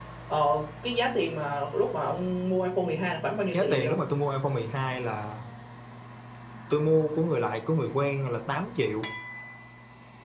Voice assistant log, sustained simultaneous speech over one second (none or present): none